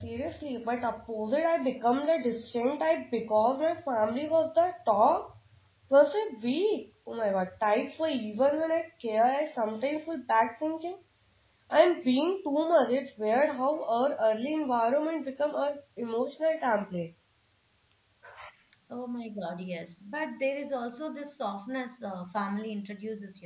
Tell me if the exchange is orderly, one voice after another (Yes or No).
Yes